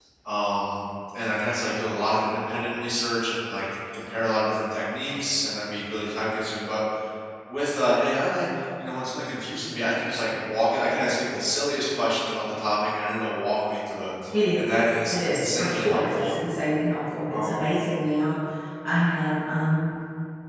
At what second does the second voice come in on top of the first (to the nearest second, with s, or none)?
15 s